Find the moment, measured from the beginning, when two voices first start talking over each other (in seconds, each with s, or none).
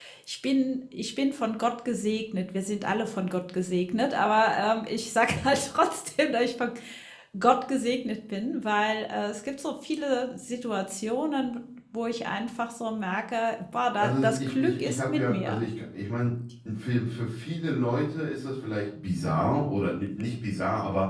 14.0 s